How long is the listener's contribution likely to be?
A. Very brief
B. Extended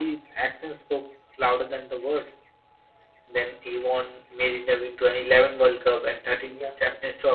A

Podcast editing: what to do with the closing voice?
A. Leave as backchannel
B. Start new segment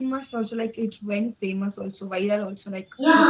B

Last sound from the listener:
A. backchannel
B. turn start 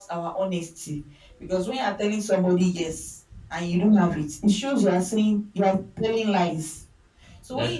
A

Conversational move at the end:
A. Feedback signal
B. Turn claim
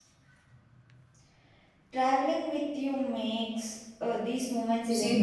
B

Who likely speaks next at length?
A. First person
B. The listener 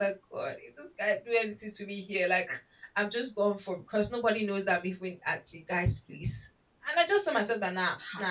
A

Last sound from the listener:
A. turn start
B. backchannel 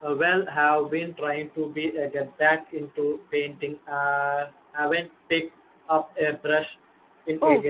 A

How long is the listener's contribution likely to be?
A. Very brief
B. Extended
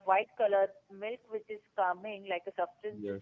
A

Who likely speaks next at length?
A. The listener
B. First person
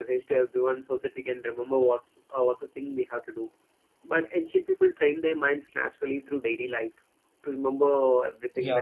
A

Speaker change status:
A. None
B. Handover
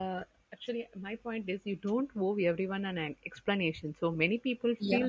A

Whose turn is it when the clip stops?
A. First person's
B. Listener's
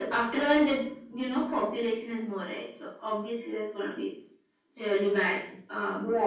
B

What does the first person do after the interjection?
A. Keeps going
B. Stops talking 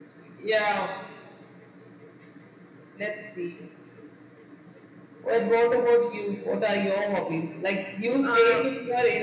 A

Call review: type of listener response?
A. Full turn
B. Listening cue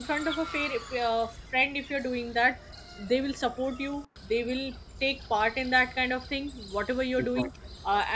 B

